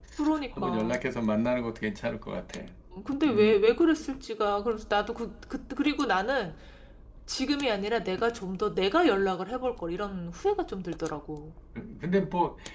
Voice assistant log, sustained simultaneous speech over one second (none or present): none